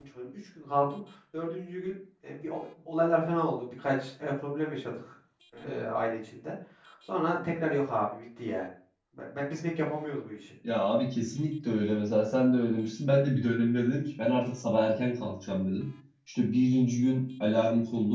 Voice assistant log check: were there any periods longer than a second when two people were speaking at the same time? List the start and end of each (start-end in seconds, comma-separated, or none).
none